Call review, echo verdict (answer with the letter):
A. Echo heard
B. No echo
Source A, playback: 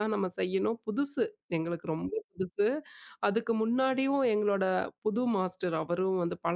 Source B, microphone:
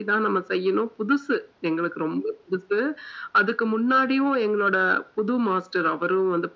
A